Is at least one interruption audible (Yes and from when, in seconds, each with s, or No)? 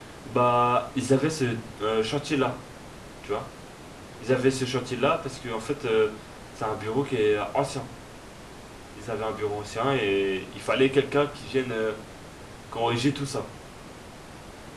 No